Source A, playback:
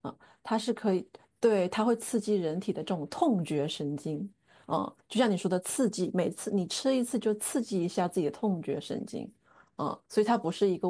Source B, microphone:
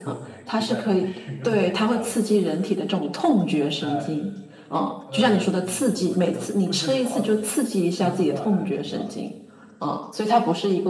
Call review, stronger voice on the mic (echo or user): echo